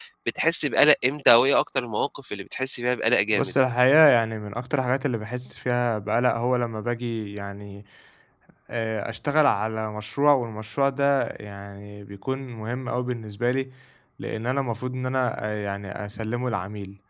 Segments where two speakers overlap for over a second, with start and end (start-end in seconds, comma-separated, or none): none